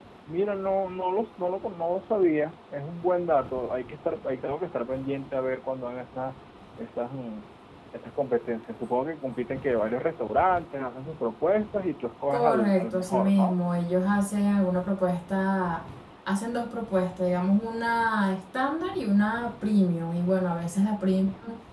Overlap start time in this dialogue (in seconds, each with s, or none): 12.3 s